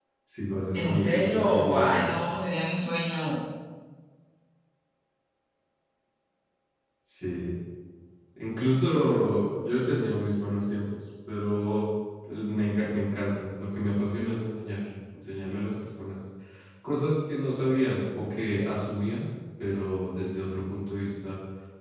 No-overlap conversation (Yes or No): No